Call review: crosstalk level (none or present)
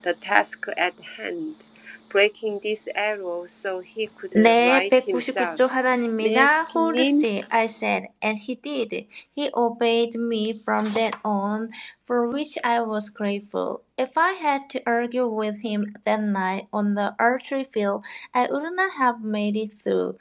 present